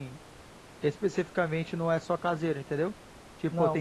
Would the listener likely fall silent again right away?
No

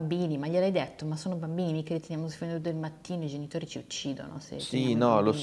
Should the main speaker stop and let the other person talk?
Yes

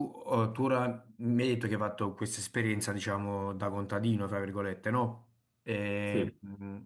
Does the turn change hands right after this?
No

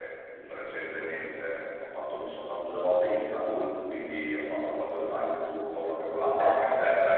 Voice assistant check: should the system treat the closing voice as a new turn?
No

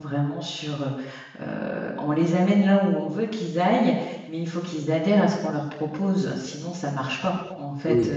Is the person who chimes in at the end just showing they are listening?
Yes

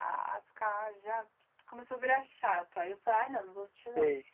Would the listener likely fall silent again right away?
Yes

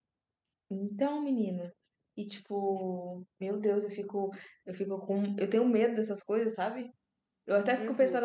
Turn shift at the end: No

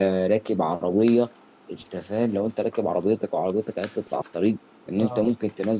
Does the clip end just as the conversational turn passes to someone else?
No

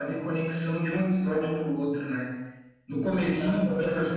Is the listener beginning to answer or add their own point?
No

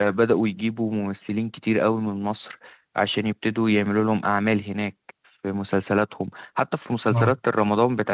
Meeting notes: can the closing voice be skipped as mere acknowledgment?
Yes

